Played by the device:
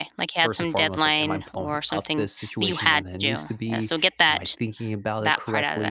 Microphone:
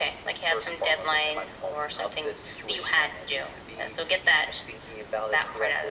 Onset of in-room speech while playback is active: none

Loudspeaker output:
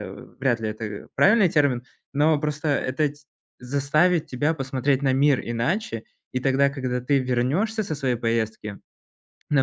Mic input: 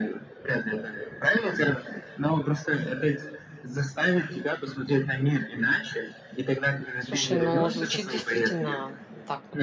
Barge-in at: 7.0 s

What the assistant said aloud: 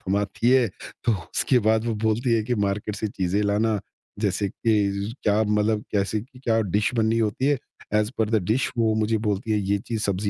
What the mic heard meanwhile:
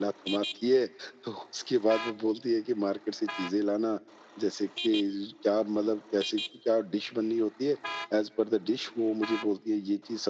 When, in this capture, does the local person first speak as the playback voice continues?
none

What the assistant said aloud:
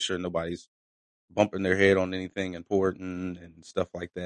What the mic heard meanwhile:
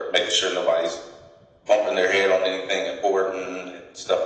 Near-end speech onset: none

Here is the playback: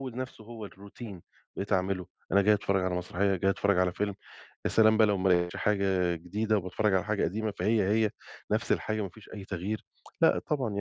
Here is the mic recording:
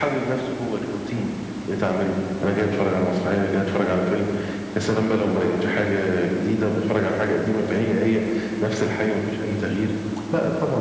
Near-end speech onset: none

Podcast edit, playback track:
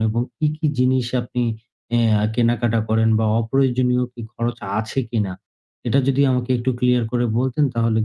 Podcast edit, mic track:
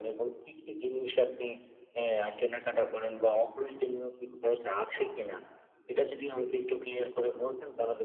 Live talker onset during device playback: none

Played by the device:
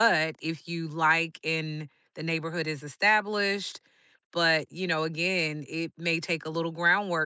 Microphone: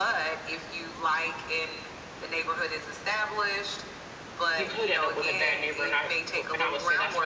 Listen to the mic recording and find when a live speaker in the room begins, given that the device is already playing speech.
4.6 s

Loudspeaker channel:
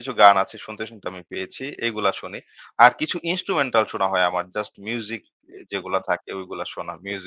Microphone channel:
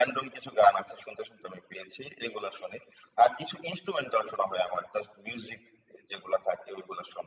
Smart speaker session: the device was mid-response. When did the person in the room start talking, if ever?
none

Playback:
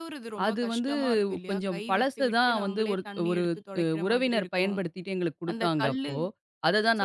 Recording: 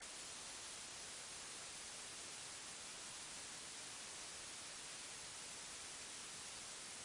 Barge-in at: none

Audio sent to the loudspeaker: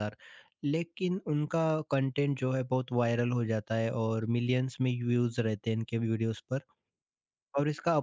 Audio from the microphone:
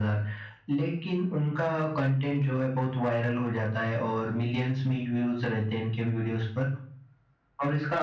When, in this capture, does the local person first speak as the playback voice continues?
none

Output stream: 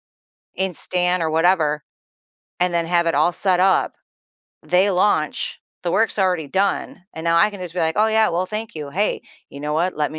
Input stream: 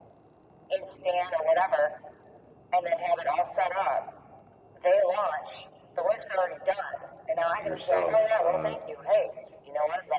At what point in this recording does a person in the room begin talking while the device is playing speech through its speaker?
7.5 s

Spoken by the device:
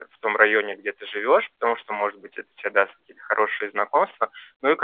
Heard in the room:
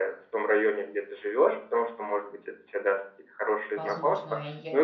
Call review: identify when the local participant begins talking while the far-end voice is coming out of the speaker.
3.8 s

